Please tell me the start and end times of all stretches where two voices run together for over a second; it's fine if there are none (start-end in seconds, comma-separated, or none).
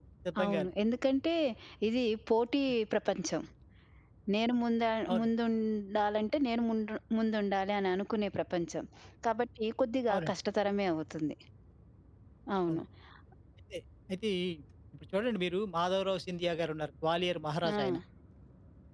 none